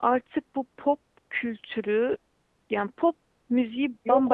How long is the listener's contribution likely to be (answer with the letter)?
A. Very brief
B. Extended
A